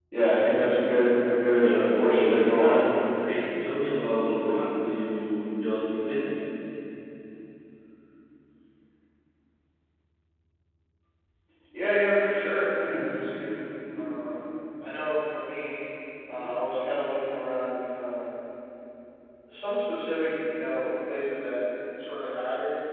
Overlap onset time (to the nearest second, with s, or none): 2 s